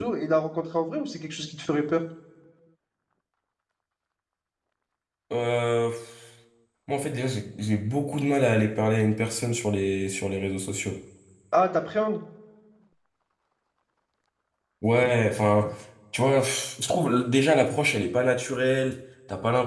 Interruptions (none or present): none